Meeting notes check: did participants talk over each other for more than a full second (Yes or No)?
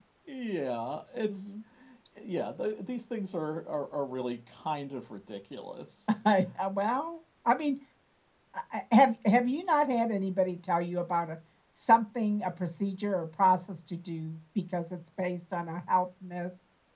No